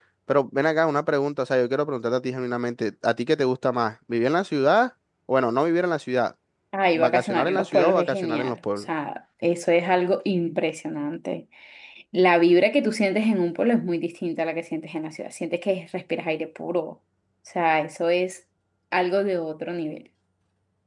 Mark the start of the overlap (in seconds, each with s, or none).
6.9 s